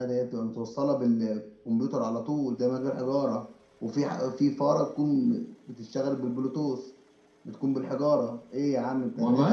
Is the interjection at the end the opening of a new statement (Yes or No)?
Yes